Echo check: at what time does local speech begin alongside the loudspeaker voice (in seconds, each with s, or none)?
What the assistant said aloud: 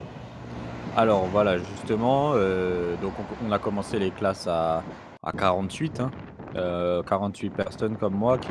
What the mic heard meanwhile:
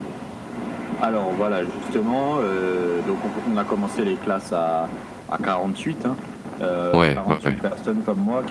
6.9 s